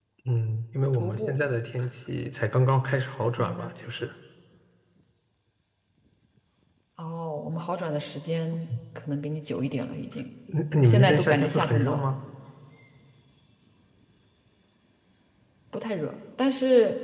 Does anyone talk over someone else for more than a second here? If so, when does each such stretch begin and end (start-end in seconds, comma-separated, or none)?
10.8-12.0